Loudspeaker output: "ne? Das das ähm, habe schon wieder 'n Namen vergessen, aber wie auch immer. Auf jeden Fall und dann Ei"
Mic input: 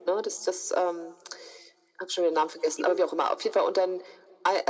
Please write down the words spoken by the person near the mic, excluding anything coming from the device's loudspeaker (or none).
7?